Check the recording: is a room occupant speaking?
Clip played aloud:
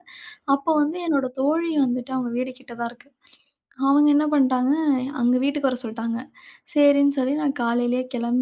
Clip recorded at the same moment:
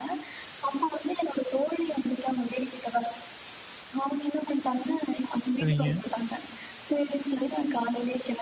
Yes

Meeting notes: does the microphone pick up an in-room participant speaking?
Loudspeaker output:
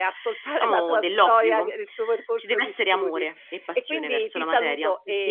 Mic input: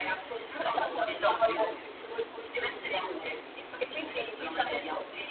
No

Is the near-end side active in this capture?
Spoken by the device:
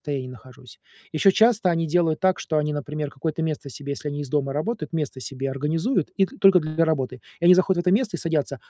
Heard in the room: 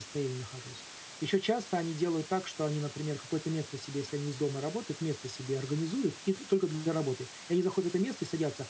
No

